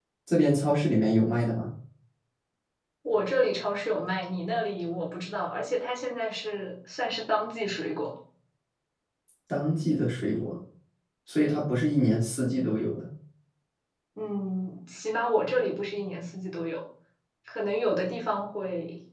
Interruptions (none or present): none